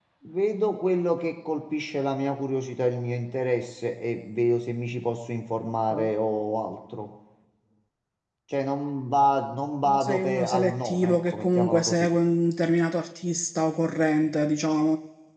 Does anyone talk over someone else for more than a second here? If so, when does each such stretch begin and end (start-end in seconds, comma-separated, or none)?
9.8-12.1